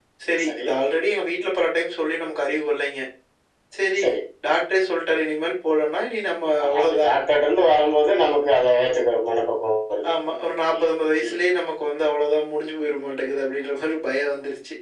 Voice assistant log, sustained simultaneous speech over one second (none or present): none